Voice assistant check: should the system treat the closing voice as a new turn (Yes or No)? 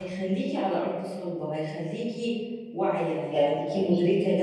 No